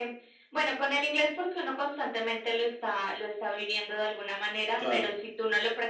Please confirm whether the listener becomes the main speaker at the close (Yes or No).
No